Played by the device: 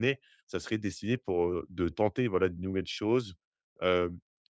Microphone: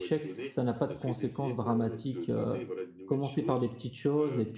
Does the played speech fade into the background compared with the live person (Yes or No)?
Yes